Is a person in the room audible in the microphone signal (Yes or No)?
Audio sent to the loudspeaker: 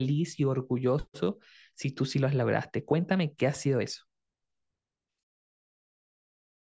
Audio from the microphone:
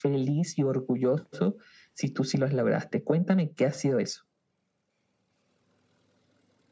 No